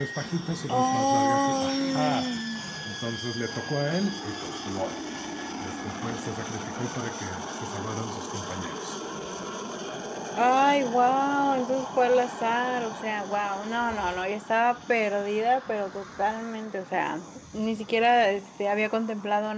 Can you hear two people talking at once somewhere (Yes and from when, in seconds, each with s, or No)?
Yes, from 0.7 s